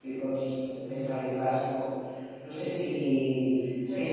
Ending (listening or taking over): listening